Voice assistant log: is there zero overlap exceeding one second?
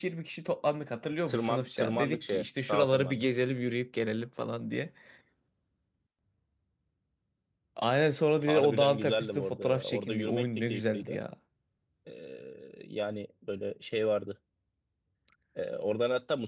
No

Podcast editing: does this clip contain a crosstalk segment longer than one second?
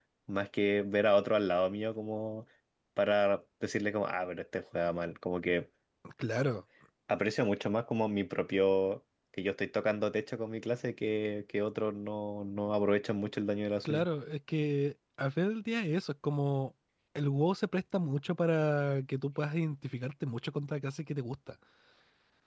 No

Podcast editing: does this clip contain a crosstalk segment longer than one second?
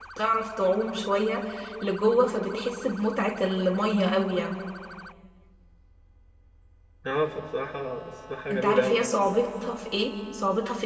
No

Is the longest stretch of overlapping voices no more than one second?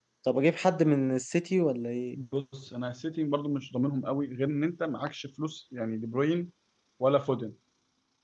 Yes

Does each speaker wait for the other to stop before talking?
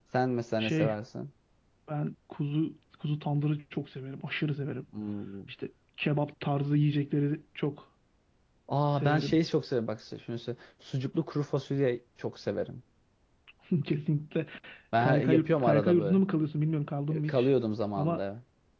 No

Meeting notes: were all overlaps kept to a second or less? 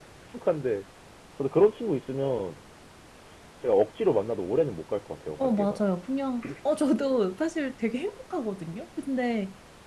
Yes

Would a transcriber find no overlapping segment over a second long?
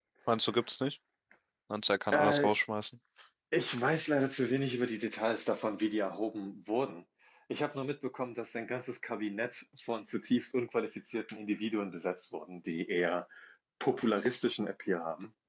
Yes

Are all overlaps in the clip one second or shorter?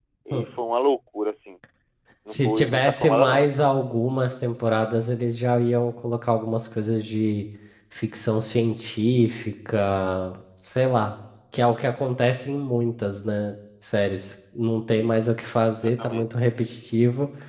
No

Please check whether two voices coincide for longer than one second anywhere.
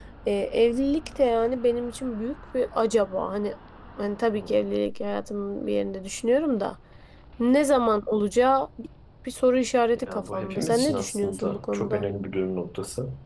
Yes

